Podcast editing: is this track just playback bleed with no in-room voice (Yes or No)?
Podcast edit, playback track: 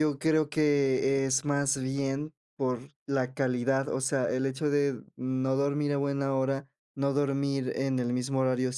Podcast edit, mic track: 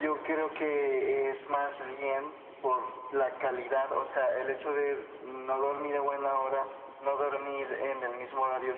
Yes